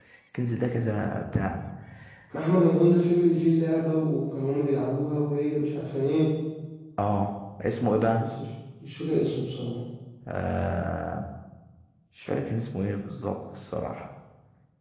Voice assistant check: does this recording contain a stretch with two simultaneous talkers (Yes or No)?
No